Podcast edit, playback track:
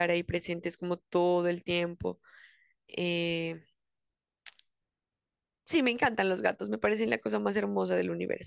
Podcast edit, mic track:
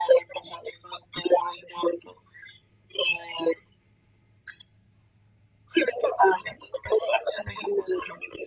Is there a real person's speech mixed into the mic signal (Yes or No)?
No